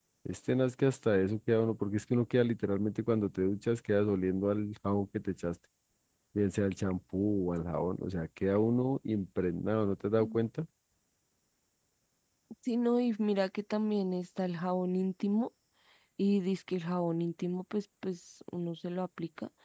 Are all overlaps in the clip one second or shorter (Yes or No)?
Yes